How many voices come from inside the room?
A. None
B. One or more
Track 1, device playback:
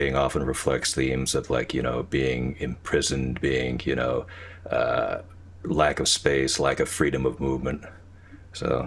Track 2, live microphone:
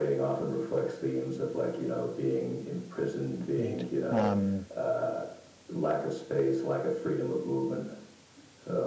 B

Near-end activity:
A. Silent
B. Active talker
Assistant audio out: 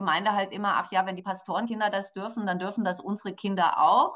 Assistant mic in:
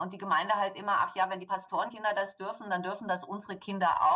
A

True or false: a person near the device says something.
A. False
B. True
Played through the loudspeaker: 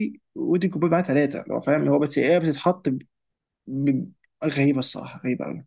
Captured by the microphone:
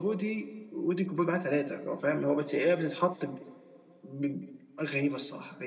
A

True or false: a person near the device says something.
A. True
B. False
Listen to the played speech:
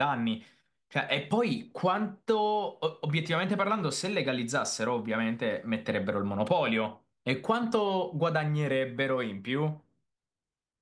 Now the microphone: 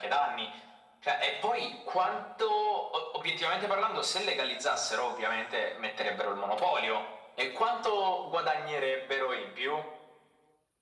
B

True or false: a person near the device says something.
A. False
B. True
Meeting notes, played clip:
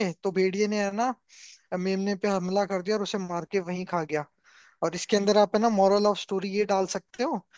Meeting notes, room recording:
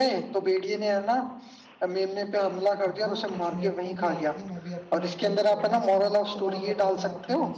B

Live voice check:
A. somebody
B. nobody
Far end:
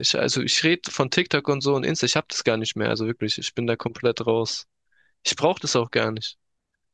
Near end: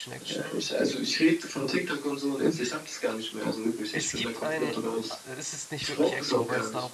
A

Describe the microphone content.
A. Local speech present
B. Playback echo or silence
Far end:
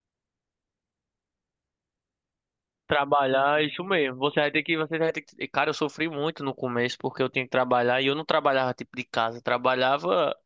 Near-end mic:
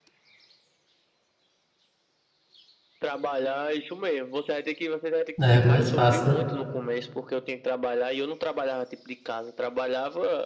A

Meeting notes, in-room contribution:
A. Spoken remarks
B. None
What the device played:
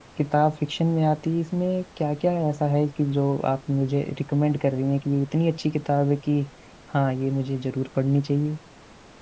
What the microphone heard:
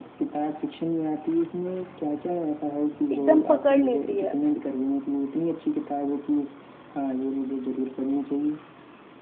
A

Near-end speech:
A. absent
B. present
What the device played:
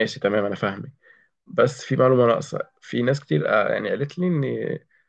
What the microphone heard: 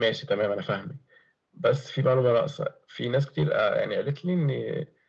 A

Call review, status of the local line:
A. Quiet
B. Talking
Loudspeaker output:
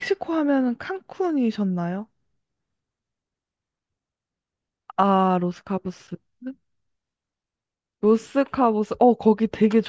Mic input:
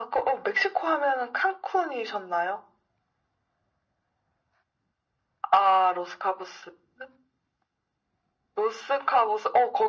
A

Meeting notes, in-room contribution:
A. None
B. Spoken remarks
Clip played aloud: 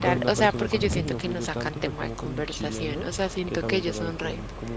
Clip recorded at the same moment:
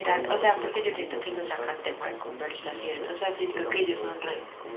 A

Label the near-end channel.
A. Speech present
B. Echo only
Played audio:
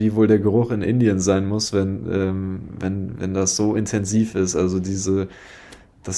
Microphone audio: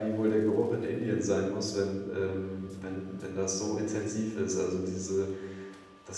B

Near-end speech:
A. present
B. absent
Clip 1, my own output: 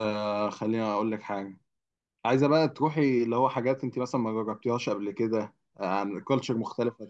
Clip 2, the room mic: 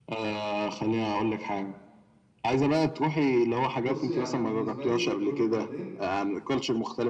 A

